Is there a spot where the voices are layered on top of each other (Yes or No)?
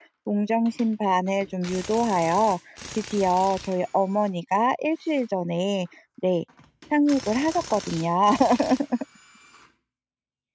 No